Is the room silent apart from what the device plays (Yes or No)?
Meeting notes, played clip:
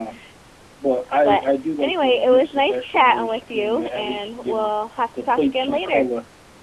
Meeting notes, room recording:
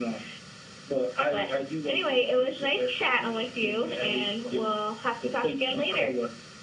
Yes